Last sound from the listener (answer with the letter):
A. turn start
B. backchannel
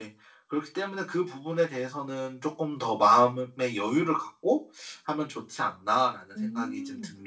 A